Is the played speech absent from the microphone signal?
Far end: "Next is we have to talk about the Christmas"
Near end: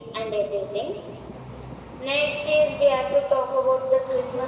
No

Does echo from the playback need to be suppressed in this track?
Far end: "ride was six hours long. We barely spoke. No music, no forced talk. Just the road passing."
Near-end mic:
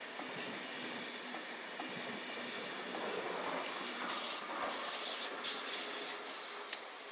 No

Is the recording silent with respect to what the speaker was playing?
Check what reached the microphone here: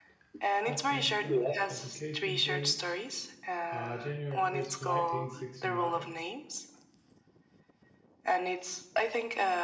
No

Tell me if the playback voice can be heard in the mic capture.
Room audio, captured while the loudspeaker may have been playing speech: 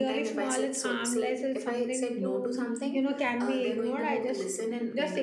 Yes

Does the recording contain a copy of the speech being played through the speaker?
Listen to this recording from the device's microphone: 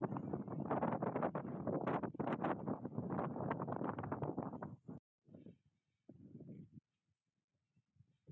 No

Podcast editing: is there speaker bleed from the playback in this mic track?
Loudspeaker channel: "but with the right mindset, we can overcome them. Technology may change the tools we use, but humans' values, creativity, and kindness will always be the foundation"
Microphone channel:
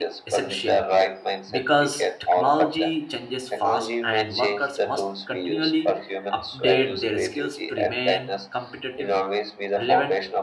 Yes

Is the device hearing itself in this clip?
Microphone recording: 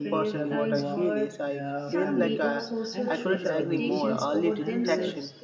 Yes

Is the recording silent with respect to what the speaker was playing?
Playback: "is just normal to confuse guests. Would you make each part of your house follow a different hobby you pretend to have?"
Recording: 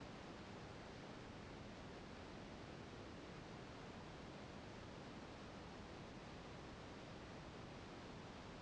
Yes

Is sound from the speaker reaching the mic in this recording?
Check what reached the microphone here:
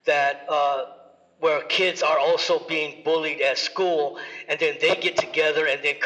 Yes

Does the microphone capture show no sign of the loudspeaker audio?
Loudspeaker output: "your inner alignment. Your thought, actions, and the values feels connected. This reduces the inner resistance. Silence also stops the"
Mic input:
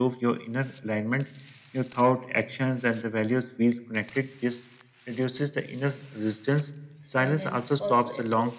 No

